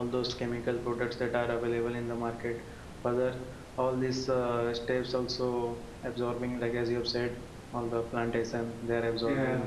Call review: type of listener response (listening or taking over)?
listening